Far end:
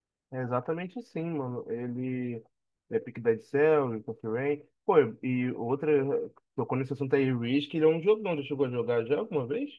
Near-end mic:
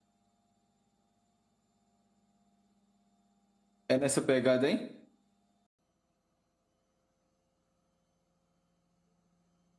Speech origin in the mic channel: user only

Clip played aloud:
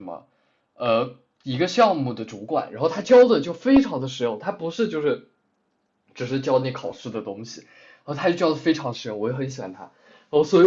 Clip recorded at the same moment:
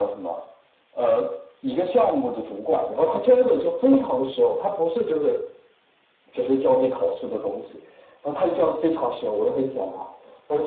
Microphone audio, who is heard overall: echo only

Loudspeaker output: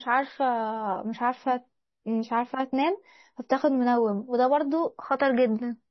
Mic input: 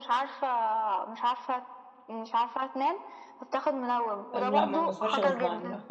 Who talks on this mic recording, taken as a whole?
both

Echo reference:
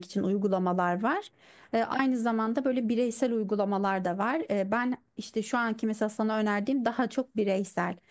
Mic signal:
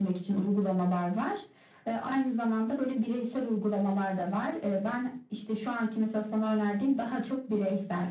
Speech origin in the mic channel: echo only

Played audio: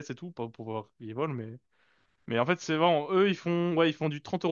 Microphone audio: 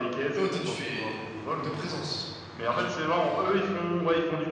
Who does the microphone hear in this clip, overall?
both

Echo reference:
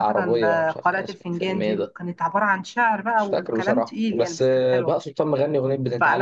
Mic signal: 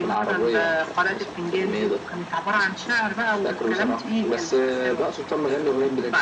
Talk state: echo only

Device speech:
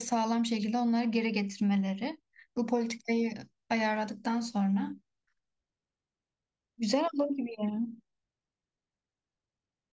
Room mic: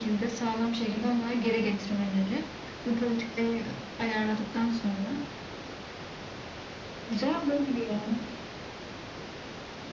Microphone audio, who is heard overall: echo only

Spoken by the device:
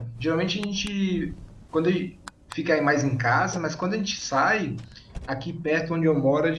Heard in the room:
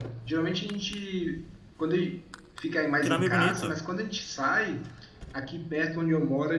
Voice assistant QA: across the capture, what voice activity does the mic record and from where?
both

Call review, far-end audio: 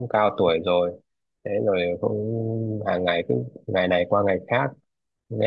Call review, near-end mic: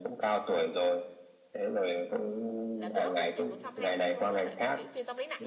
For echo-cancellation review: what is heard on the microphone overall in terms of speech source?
both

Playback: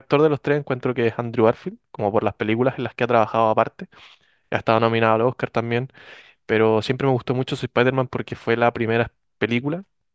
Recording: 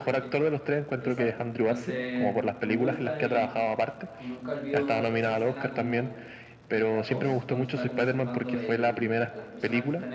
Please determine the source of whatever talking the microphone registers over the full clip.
both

